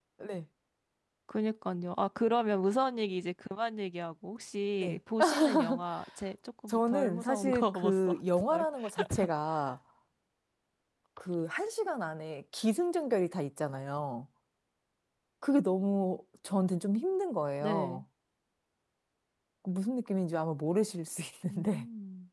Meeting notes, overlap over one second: present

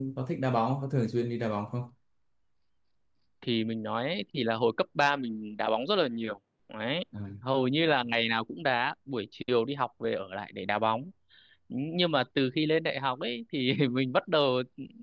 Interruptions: none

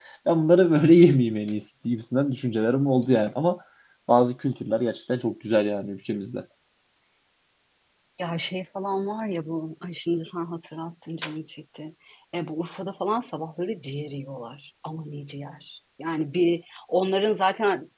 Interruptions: none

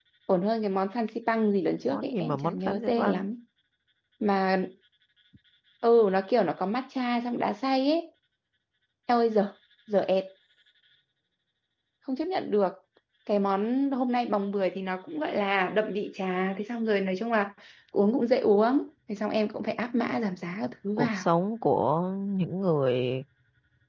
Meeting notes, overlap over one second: present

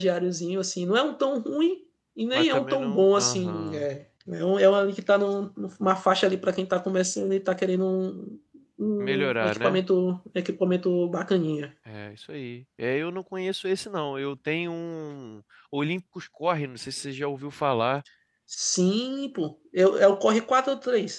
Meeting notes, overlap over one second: present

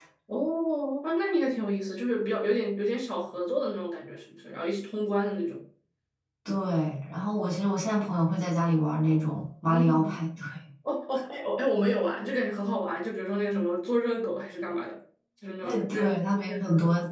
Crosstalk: present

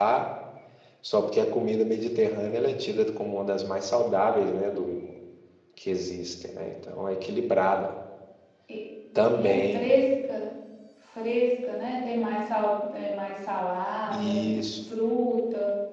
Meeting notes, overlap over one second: none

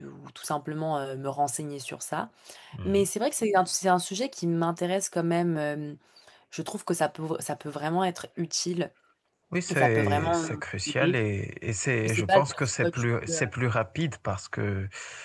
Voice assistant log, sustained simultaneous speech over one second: present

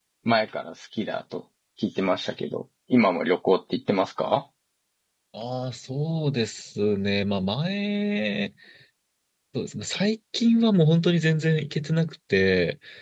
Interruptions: none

